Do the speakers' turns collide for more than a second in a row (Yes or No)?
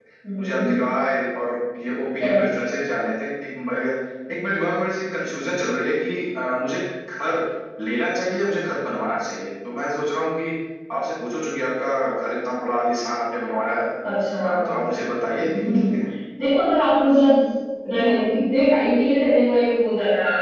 No